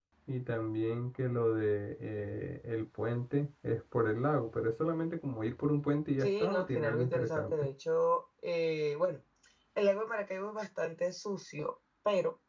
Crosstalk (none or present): present